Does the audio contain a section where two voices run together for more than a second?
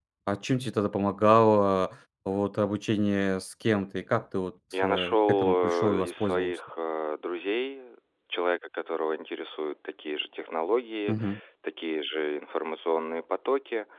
Yes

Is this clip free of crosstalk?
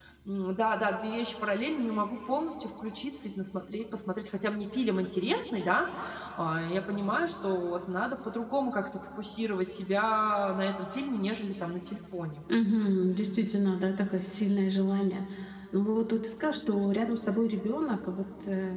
Yes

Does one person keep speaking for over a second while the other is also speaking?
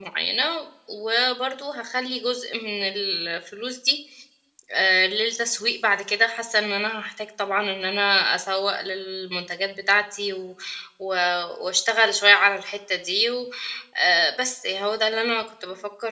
No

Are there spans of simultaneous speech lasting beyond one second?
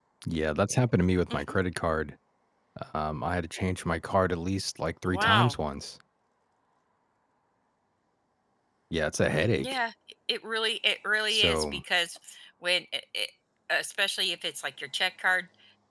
No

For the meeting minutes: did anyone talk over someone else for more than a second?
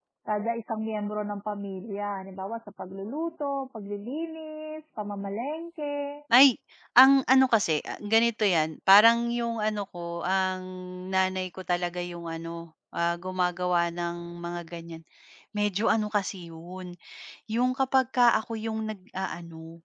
No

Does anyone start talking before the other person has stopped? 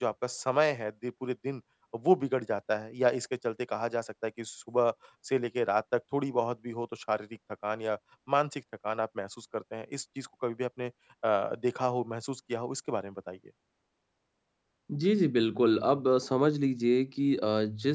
No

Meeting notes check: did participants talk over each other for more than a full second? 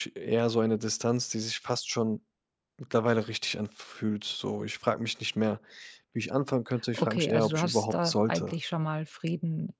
Yes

